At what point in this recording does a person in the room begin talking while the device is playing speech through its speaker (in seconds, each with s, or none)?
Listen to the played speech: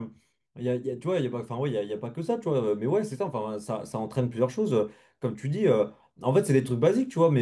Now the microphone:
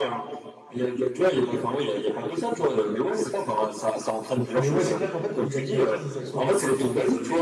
4.5 s